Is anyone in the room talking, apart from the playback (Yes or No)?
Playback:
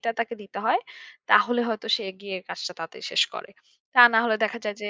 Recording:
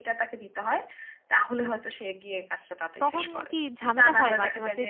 Yes